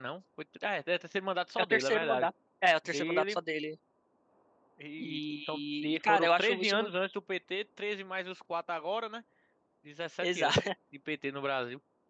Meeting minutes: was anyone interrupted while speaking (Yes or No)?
Yes